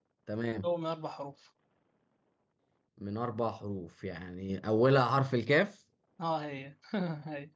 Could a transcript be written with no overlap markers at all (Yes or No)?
Yes